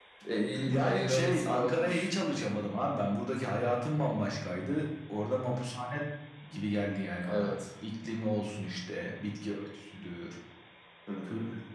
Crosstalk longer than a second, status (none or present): present